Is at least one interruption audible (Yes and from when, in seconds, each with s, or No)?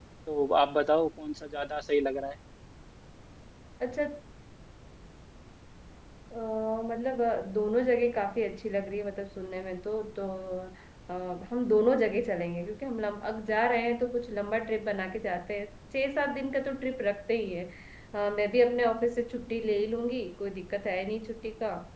No